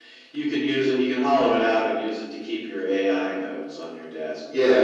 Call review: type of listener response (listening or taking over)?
taking over